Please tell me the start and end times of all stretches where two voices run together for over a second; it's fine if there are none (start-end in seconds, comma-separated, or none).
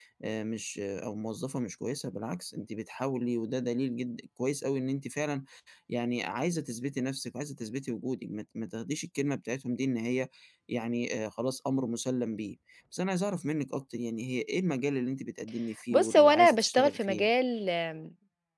15.9-17.3